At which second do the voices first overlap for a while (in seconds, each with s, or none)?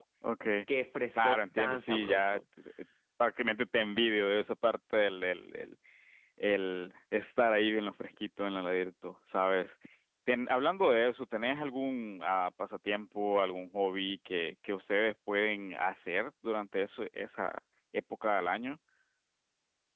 1.1 s